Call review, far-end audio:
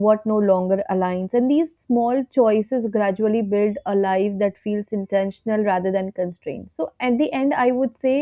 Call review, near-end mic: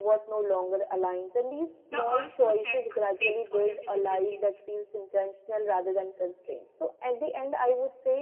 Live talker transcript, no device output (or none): The urge to check, fix, or revisit weakens.